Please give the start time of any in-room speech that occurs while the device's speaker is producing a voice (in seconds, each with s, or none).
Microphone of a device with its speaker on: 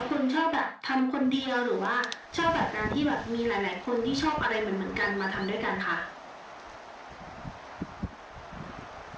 none